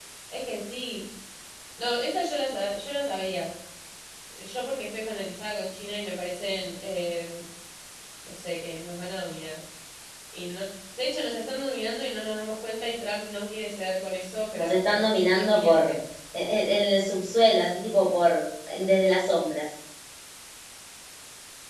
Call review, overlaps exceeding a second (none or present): present